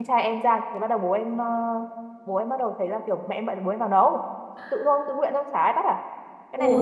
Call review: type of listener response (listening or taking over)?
taking over